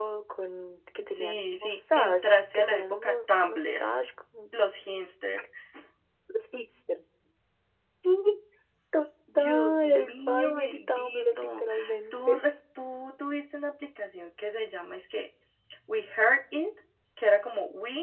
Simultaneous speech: Yes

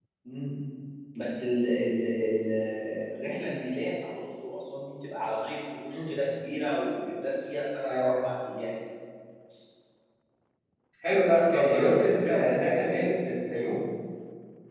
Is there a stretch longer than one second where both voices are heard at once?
Yes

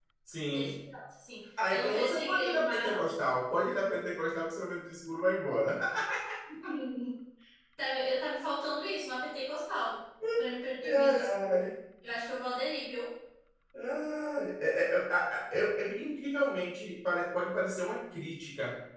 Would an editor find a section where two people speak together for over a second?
Yes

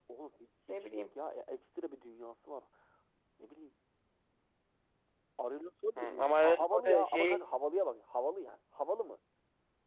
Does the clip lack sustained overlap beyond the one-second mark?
No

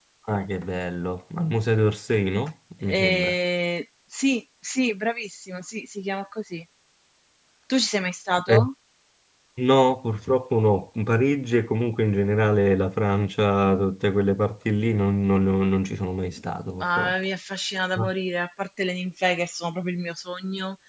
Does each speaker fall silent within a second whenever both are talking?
Yes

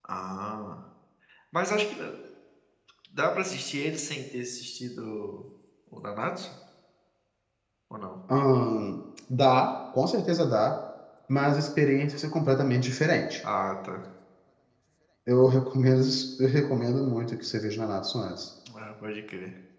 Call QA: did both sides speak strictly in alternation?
Yes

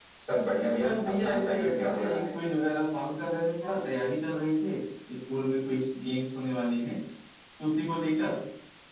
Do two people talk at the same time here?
Yes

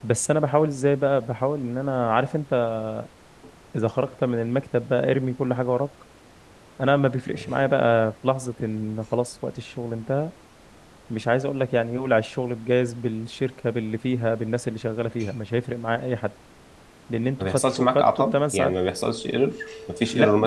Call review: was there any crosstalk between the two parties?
Yes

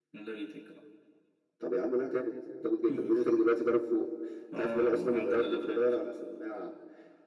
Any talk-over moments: Yes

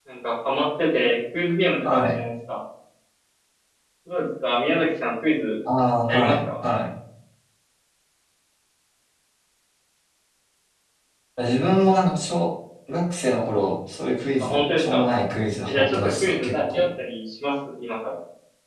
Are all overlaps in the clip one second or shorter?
No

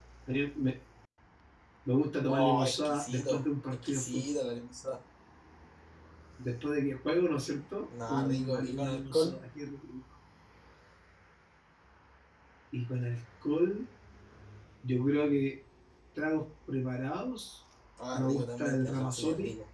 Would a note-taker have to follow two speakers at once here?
Yes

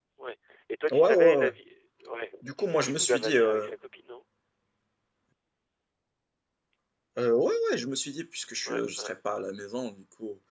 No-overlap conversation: No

